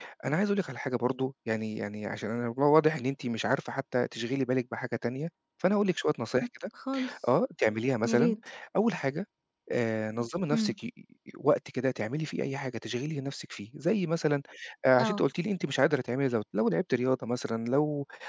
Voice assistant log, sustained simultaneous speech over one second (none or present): none